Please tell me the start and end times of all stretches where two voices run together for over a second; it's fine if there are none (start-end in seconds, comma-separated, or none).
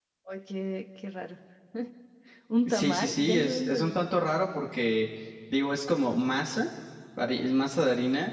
2.6-4.1